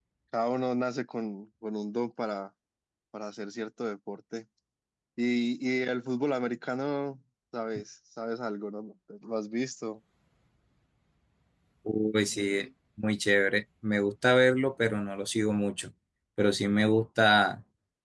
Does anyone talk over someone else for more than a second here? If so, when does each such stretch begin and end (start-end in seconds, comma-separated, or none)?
none